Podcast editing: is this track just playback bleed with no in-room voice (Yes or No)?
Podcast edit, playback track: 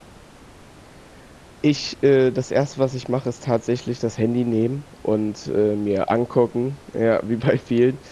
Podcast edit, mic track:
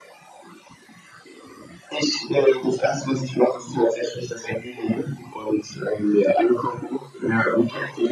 Yes